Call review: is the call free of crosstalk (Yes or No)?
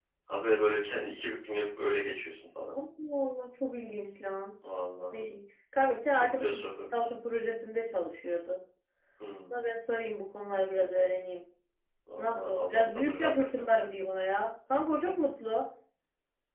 No